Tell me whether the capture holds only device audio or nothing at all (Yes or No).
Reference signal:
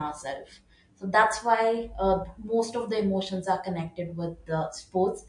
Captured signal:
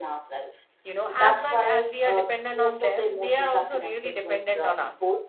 No